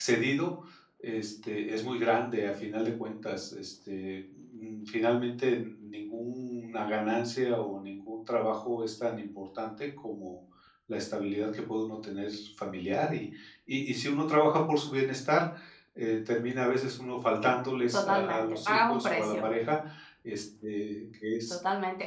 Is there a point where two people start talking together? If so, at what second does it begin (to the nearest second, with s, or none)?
18 s